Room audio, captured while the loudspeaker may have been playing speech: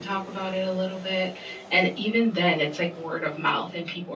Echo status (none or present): none